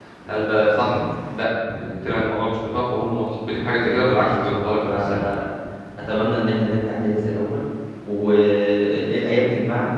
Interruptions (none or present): present